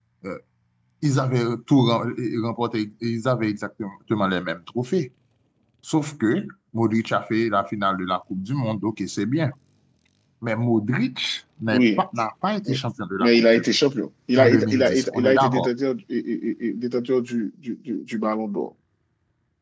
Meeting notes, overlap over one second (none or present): present